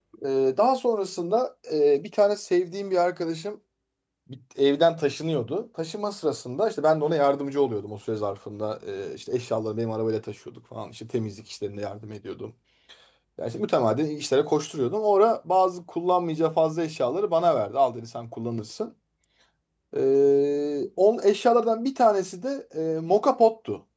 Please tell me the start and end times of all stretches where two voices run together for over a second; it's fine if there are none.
none

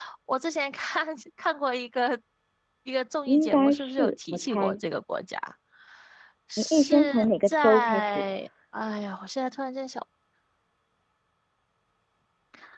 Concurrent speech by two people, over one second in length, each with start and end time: 3.3-4.8, 6.6-8.2

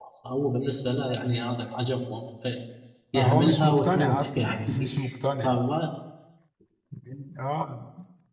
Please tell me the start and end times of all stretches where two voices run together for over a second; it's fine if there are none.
3.1-4.9

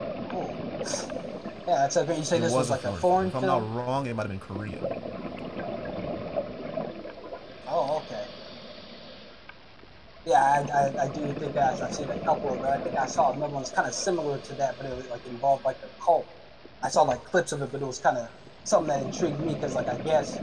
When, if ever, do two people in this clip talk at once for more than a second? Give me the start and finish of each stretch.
2.3-3.7

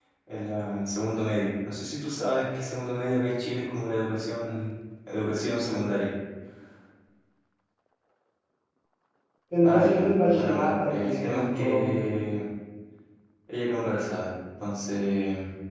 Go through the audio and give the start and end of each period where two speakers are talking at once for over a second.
9.6-12.1

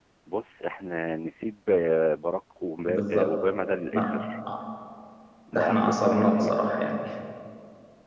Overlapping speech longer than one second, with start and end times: 5.5-6.9

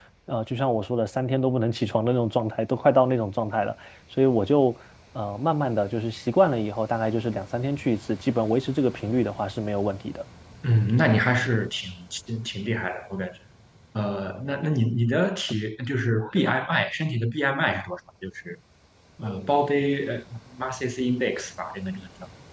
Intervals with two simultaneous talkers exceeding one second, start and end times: none

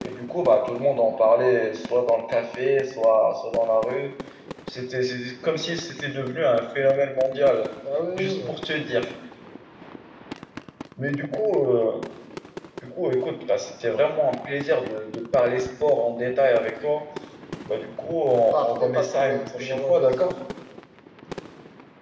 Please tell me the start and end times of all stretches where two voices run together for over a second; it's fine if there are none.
18.5-20.3

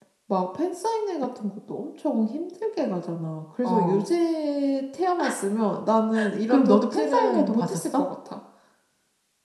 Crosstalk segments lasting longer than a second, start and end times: 6.5-8.1

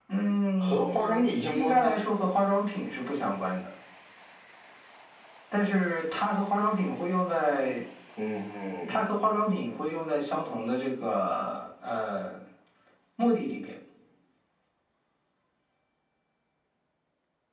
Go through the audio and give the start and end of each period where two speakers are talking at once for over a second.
0.6-2.0

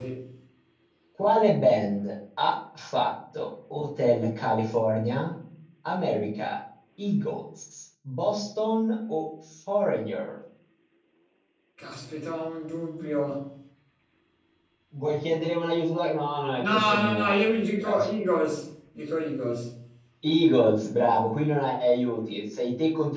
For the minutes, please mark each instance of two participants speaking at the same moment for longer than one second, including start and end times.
16.7-18.1

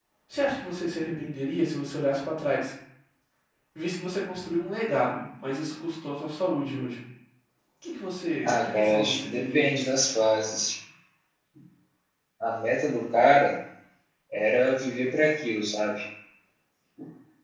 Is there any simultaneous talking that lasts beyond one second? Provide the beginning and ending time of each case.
8.4-9.9

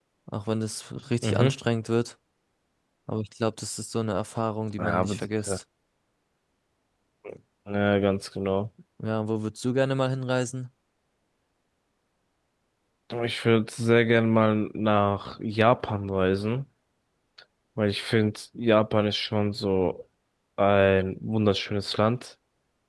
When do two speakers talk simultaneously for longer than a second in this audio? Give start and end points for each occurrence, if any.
none

